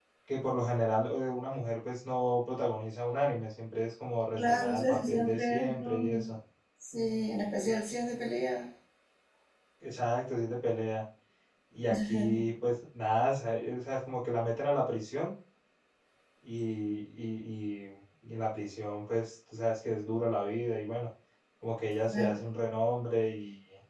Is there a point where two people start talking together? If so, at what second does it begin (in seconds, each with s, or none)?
4.4 s